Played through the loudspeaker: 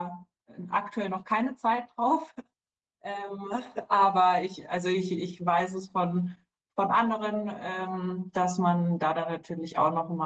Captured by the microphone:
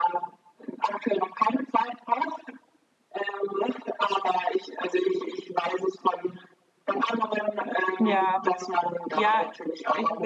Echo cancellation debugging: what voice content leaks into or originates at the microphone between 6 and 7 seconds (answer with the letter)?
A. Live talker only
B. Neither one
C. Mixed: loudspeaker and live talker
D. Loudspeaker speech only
D